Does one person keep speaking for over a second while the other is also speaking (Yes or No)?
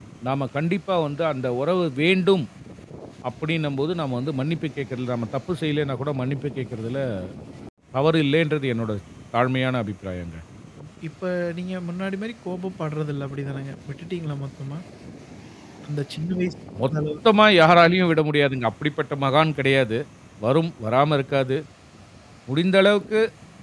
No